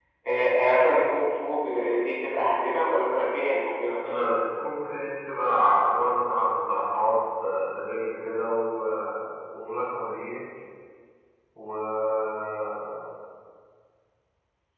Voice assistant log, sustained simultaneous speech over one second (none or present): none